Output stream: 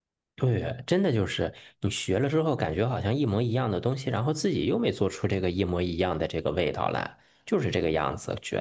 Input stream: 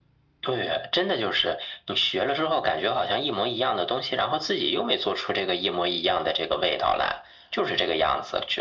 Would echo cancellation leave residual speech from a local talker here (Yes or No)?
No